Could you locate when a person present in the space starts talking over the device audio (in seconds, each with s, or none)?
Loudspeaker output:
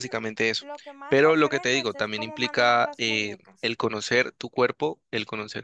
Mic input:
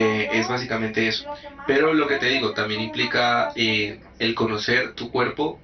none